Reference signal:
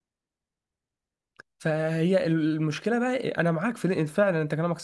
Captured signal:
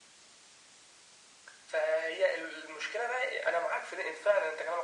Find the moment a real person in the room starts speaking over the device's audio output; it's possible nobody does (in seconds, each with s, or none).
none